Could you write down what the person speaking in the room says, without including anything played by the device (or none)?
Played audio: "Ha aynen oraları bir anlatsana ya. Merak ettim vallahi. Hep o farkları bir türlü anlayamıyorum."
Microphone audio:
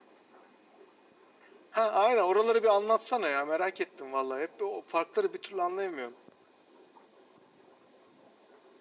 none